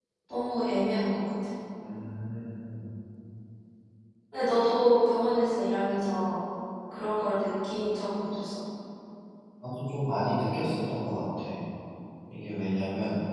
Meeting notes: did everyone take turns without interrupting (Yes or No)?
Yes